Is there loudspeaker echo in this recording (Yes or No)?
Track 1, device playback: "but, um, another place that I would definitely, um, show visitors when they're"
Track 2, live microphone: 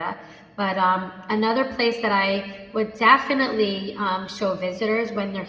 Yes